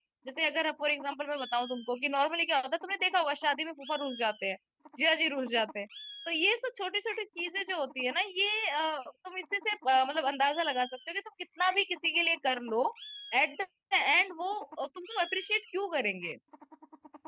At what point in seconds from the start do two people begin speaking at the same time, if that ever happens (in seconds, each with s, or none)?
none